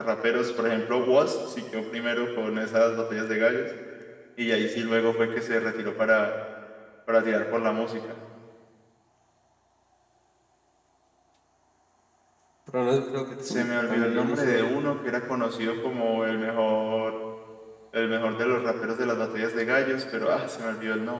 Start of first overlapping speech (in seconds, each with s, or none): 13.5 s